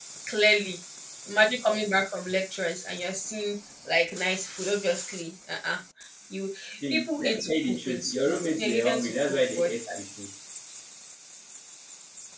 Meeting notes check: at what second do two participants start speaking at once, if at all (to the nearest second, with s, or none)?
7 s